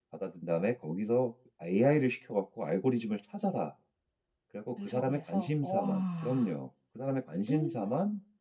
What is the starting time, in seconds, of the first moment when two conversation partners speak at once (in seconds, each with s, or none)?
4.8 s